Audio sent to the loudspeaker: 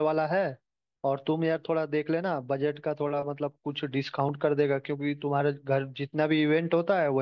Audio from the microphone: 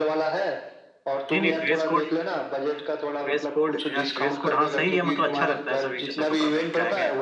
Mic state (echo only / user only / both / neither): both